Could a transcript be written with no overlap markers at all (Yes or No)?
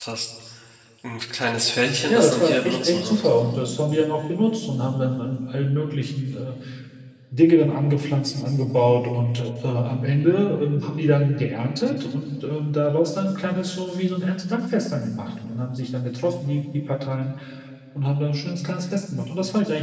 No